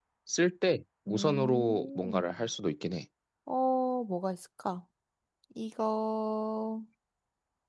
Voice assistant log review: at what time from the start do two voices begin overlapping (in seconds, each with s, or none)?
1.1 s